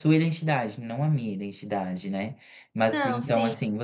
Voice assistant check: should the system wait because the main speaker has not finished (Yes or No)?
Yes